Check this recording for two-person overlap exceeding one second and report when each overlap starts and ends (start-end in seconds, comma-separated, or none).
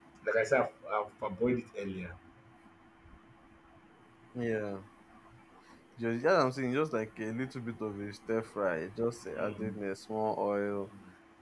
none